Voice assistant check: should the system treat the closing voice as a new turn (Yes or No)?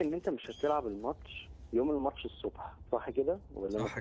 Yes